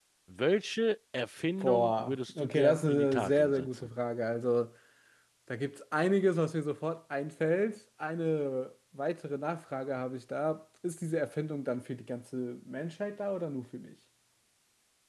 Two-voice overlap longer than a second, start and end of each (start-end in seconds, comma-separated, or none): 1.6-3.9